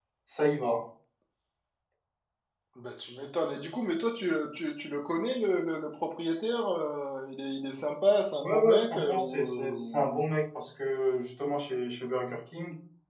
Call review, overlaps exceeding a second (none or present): present